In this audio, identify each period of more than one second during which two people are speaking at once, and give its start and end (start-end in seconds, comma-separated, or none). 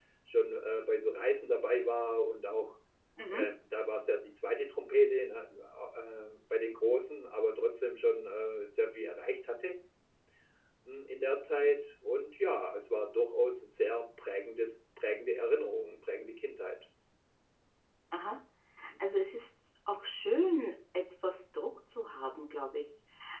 none